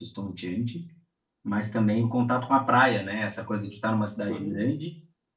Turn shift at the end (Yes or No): No